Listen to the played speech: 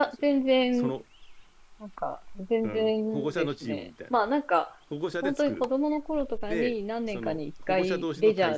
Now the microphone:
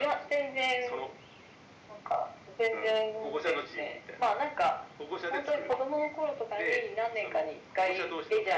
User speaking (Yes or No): No